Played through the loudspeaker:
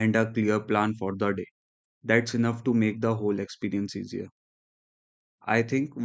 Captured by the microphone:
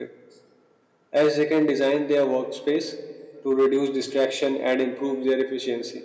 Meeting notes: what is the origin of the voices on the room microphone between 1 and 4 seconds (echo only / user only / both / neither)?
user only